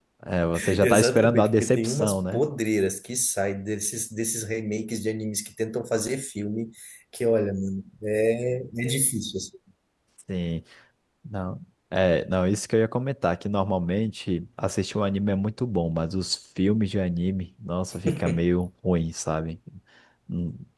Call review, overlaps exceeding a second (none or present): present